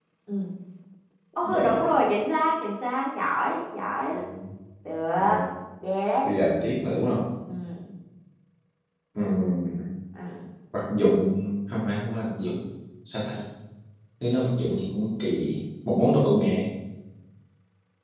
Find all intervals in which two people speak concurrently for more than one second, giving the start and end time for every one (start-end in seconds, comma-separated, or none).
none